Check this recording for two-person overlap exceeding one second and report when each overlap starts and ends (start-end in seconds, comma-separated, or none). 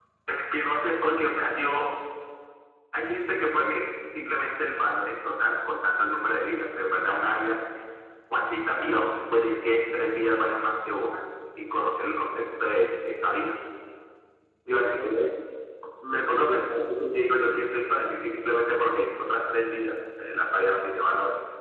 none